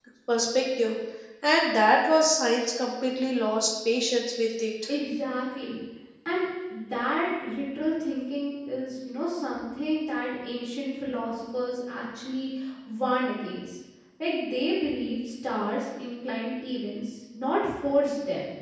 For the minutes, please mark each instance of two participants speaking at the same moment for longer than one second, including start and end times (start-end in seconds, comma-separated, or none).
none